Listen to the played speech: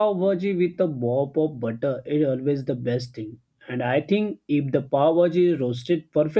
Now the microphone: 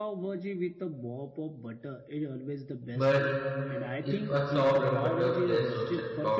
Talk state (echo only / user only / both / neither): both